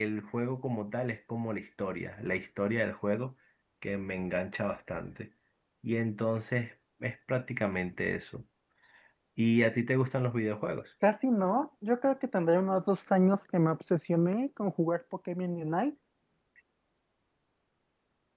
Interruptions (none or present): none